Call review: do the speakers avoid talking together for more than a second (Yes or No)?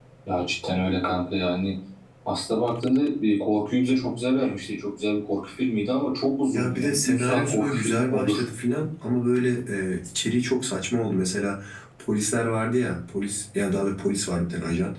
No